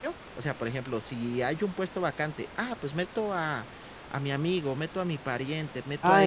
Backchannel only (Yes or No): No